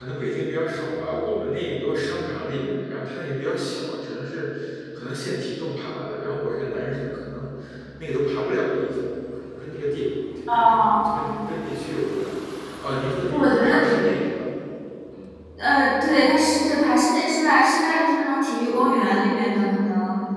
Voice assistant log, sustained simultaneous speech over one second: none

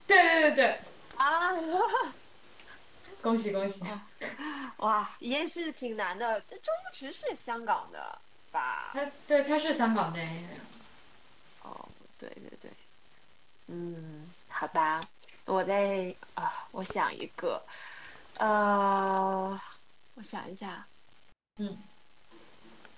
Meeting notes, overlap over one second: none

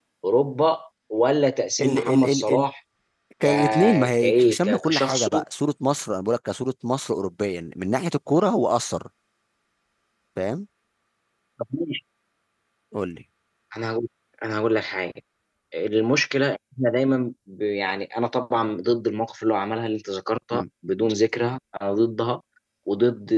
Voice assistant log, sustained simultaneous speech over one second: present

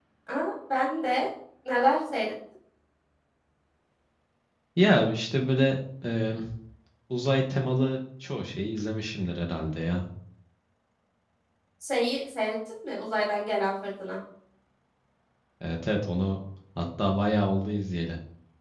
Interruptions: none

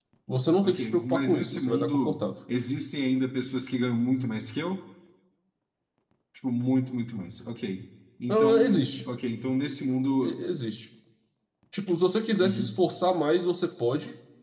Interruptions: present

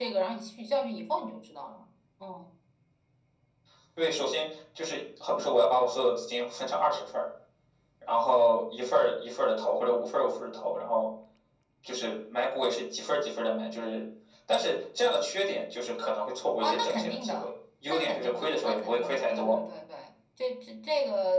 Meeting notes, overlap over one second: present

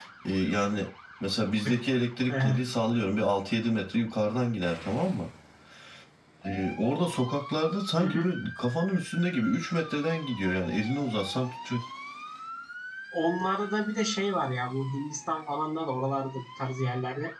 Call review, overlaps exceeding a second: none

